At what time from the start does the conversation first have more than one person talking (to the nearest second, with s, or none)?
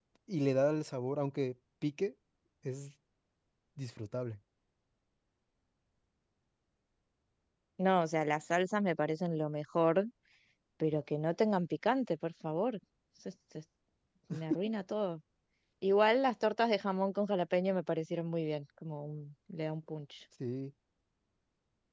none